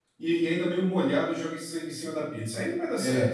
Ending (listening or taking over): taking over